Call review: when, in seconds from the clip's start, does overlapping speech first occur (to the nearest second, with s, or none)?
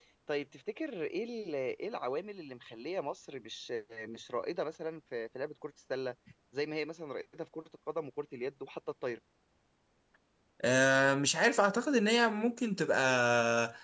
none